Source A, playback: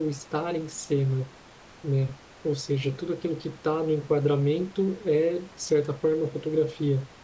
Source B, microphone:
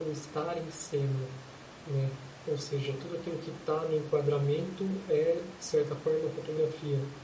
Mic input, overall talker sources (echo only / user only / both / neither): echo only